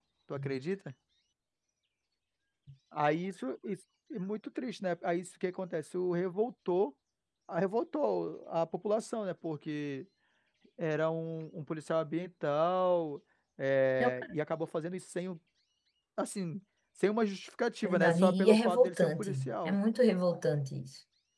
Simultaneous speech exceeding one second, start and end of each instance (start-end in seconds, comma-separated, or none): 17.8-19.8